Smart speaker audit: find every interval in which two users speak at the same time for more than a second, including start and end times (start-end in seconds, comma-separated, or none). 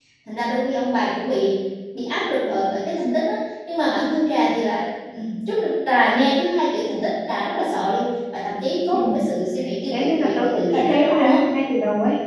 9.9-11.4